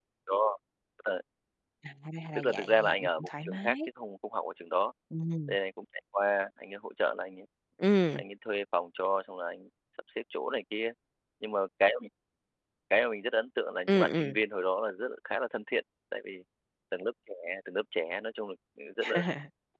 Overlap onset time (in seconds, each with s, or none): 2.4 s